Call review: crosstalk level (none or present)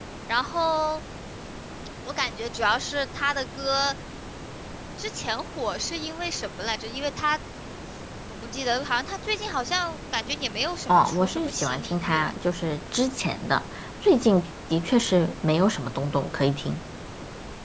present